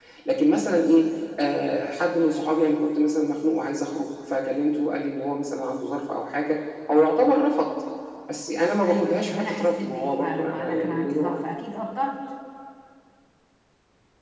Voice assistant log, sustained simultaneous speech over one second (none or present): present